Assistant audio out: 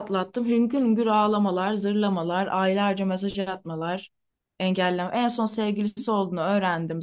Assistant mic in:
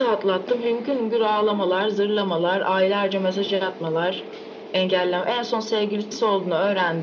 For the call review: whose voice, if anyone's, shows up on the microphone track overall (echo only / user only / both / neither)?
echo only